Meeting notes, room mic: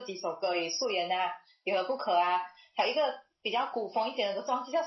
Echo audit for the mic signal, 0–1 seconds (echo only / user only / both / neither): echo only